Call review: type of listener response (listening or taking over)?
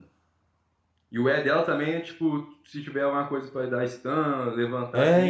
taking over